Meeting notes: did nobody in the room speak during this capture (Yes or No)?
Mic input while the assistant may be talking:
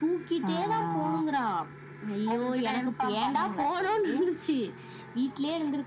Yes